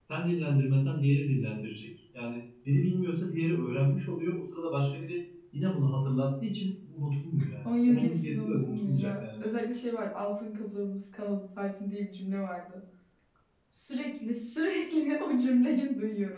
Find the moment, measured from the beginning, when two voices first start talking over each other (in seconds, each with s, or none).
7.6 s